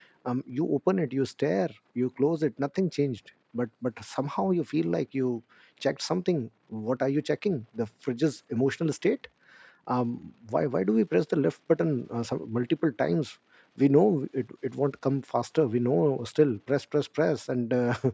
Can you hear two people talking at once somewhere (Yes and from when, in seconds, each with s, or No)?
No